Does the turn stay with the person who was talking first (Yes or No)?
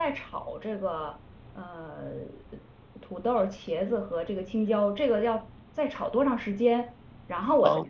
Yes